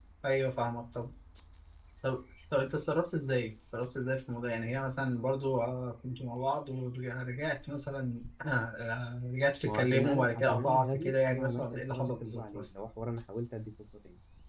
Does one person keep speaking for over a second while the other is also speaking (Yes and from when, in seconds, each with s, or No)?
Yes, from 9.6 s